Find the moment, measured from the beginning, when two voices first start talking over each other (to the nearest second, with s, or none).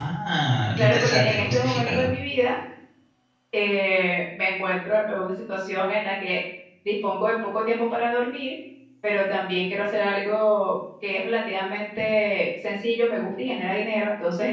1 s